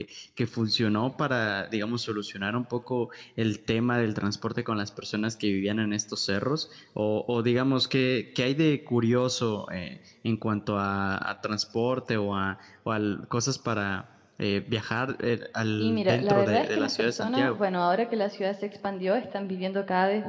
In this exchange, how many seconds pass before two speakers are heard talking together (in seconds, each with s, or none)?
15.8 s